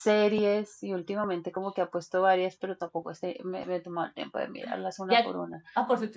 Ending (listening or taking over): taking over